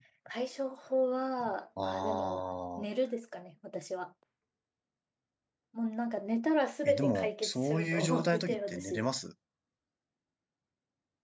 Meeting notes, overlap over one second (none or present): present